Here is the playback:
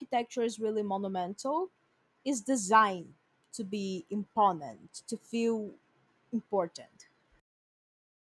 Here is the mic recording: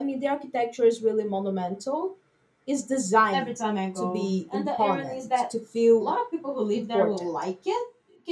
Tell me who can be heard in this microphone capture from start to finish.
both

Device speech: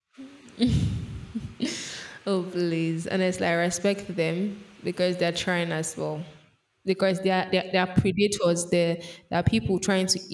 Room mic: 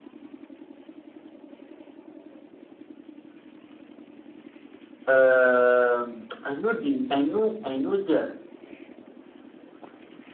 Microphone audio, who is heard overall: user only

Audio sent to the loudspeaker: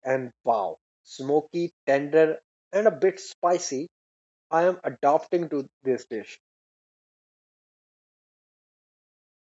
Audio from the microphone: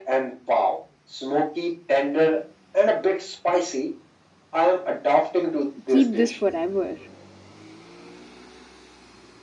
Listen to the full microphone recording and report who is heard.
both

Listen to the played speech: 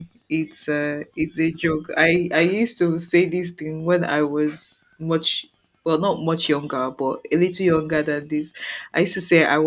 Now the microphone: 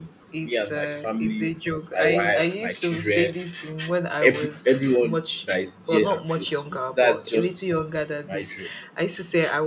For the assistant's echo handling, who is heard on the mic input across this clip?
both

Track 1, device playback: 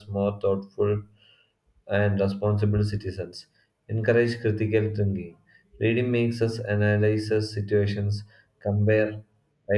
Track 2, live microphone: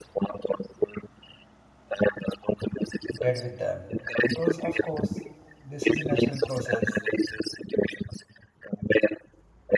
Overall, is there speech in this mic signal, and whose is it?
both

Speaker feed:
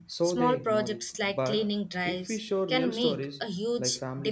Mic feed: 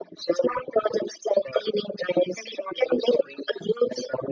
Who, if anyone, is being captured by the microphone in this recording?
echo only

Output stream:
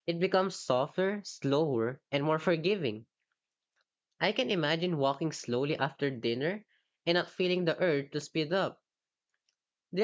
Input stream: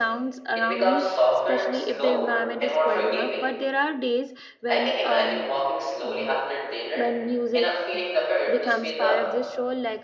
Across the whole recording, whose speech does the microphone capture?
both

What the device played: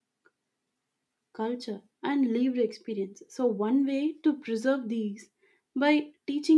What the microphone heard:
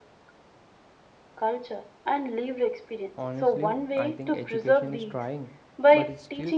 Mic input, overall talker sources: both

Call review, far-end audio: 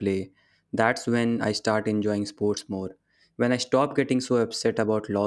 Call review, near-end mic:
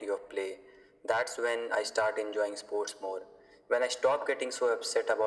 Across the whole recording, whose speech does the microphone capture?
echo only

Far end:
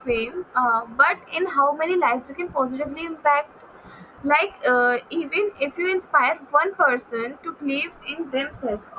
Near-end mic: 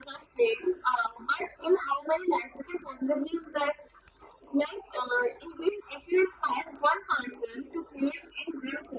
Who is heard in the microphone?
echo only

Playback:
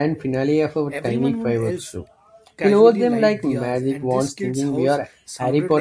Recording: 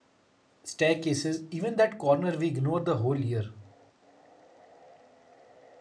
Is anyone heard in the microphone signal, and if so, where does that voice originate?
user only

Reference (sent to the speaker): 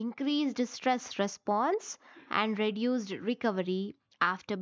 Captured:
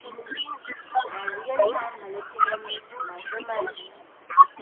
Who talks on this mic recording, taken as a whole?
both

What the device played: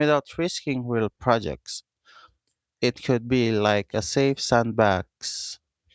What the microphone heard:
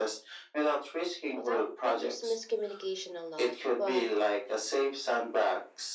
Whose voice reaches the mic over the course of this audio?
both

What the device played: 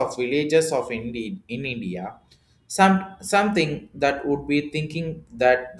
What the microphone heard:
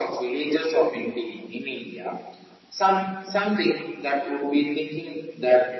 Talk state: echo only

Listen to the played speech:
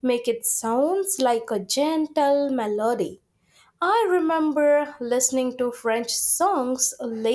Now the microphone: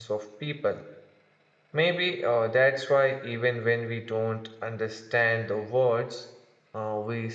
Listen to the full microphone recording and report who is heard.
user only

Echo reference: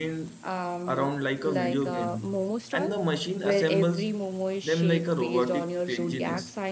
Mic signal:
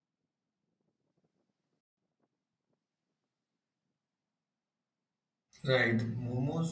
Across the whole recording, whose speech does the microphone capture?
user only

